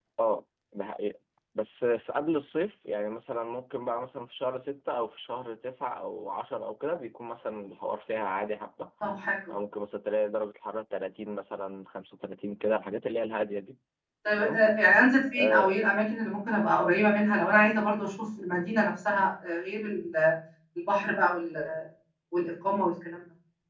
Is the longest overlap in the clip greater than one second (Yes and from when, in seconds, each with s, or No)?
No